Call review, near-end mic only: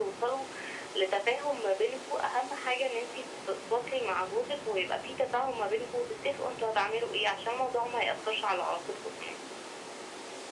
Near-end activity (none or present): none